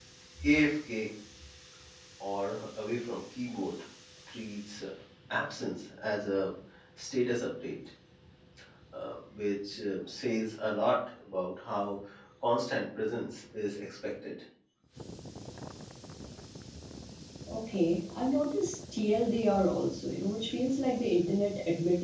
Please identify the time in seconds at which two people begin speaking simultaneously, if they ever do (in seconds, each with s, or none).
none